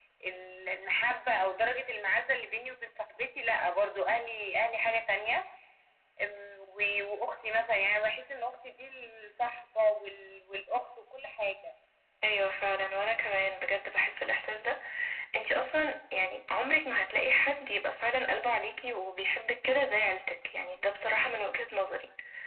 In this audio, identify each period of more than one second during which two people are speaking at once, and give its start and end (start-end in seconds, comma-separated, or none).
none